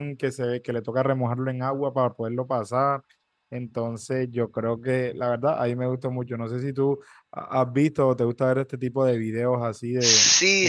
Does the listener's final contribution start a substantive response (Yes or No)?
Yes